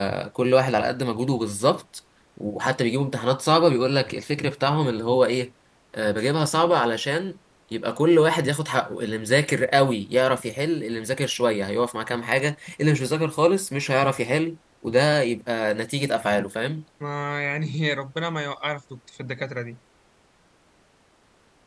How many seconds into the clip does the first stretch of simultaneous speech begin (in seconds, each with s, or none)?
none